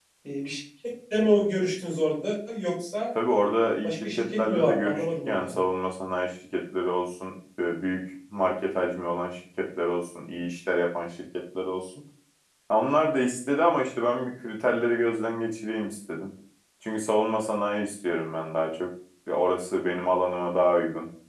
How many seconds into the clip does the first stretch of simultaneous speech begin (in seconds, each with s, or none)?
3.8 s